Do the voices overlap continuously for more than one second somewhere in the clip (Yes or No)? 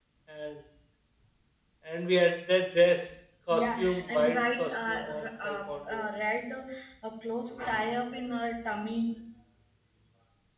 Yes